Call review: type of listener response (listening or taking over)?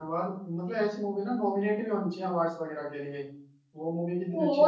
taking over